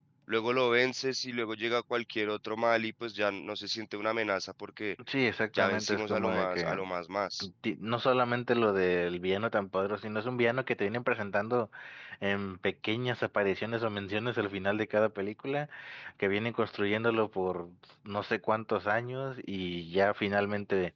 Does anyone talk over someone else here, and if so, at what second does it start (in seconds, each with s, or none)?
5.6 s